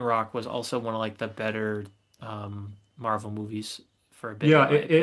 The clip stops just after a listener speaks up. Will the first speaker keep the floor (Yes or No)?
No